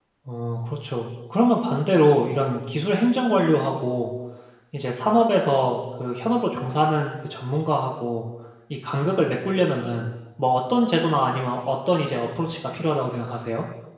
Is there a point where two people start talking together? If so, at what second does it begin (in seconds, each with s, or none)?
none